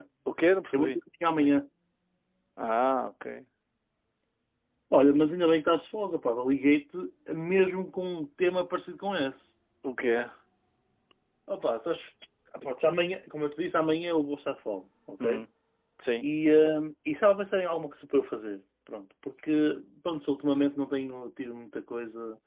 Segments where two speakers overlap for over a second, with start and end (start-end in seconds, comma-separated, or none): none